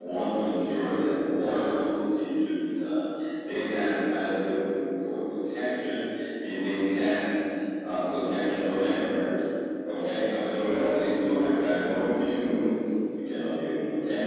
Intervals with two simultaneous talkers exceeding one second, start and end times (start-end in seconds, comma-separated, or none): 10.5-12.6